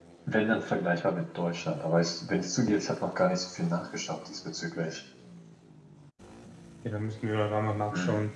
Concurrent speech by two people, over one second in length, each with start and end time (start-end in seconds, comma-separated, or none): none